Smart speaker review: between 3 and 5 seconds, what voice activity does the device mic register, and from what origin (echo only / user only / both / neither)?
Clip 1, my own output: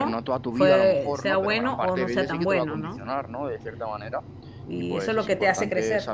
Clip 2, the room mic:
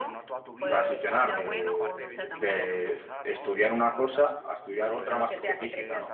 both